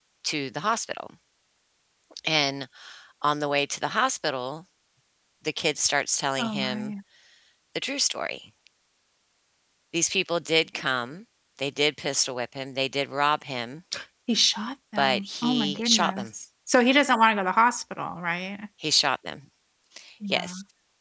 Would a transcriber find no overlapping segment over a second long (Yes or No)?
No